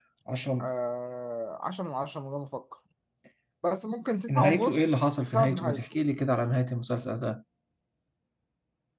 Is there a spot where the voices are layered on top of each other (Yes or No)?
Yes